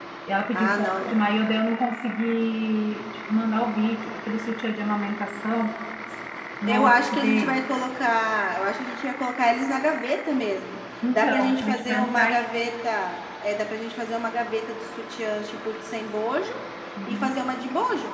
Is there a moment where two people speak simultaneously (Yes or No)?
Yes